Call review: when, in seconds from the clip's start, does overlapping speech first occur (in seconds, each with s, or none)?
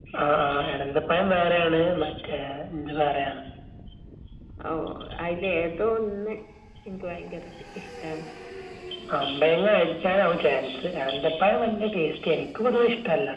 none